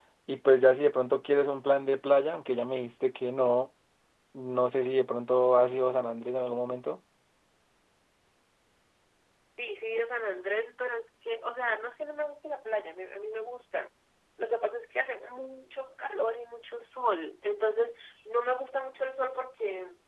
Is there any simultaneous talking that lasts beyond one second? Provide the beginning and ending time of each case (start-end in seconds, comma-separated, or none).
none